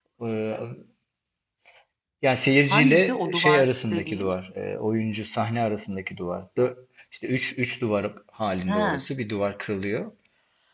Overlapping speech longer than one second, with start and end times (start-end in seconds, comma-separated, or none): 2.7-4.3